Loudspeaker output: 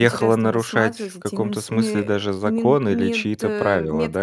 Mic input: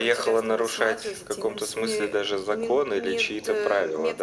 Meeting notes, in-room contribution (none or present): none